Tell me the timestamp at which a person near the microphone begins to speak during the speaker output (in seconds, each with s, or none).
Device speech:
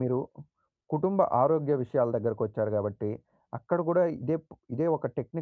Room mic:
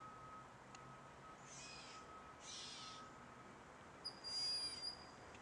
none